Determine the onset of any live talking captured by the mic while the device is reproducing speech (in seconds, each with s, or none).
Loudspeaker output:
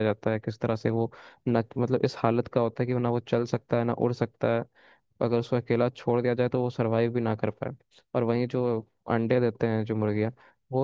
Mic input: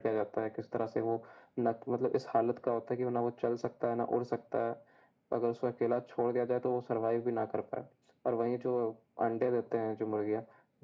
none